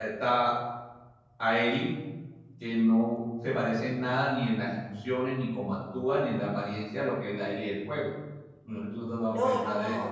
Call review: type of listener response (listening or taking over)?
taking over